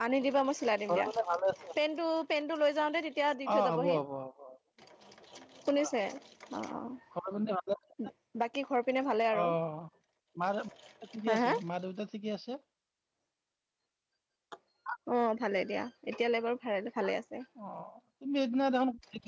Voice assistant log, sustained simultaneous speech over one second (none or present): none